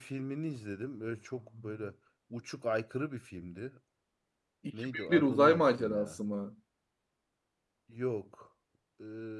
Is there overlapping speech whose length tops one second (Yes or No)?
Yes